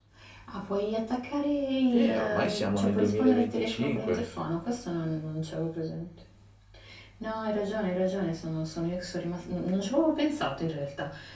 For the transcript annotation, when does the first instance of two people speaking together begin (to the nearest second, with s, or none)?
2 s